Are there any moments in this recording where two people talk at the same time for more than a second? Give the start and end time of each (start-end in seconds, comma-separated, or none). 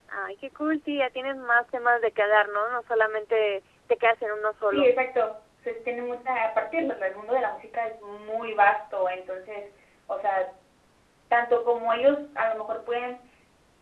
none